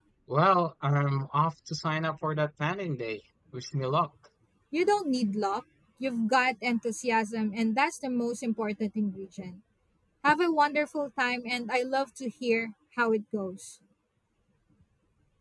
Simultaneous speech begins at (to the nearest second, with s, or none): none